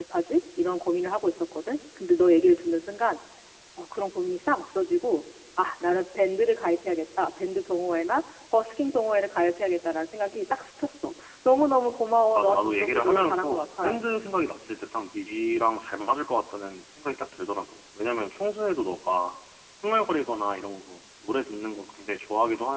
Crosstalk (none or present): present